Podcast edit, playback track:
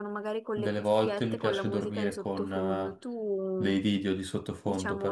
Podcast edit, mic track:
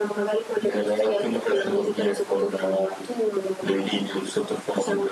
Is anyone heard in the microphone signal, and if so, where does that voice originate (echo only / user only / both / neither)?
echo only